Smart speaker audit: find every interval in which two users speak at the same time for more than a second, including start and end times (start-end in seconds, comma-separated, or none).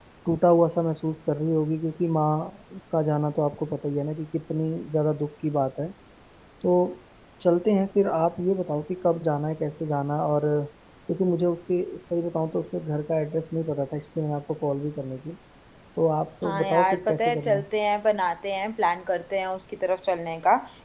16.4-17.6